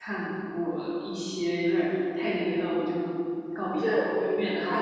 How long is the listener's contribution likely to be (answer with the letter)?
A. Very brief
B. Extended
B